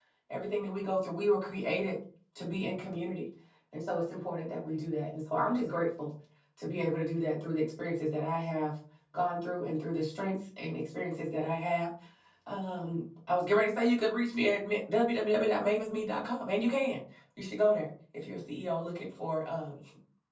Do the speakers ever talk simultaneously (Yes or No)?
No